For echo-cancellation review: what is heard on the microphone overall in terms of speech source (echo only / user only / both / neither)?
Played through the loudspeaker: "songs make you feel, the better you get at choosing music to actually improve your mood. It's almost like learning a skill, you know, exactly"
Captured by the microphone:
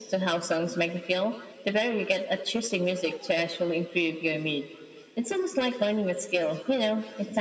echo only